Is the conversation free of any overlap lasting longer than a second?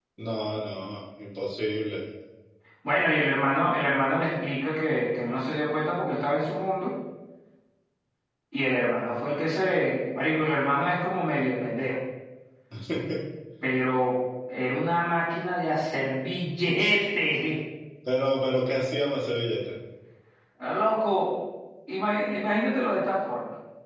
Yes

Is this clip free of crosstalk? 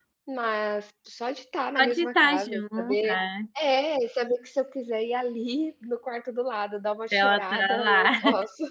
No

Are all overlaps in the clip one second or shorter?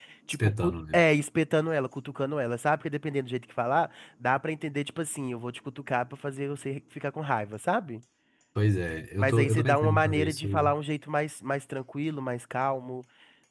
No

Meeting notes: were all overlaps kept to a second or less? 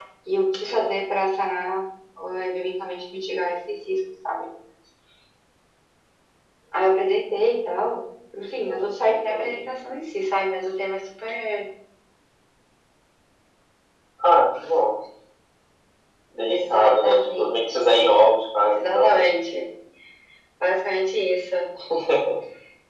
No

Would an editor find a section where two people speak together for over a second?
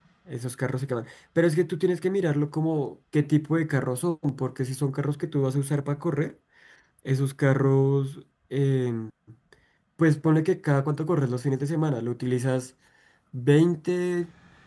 No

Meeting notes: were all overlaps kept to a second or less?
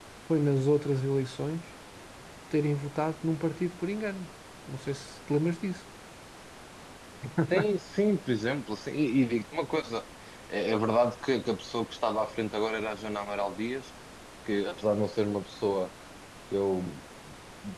Yes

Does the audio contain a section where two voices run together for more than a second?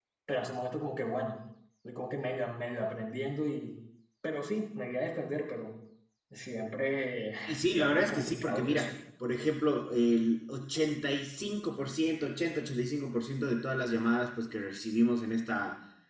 Yes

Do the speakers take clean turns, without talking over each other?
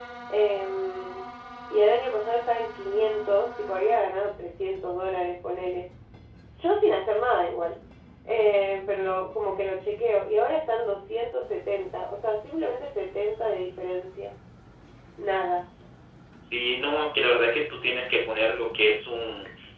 Yes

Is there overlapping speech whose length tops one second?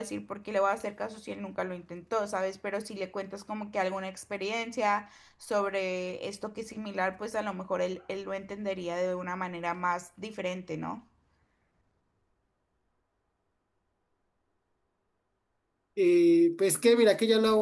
No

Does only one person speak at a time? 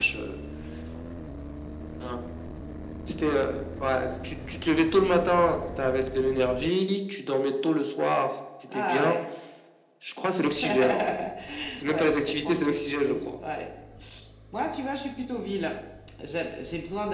No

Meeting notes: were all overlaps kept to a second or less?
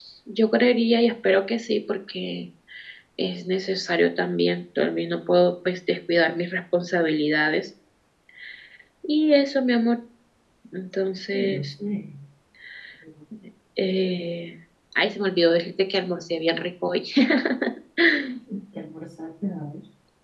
Yes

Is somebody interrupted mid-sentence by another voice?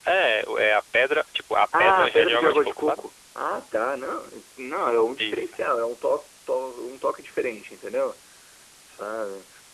Yes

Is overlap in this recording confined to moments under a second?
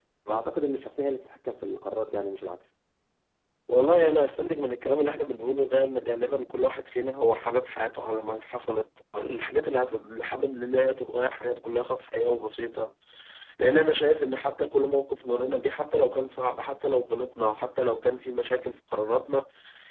Yes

